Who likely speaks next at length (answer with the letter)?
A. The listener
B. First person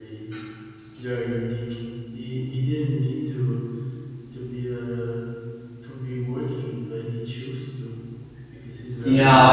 A